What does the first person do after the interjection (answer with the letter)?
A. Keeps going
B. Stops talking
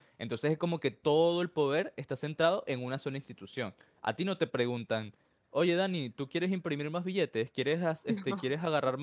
A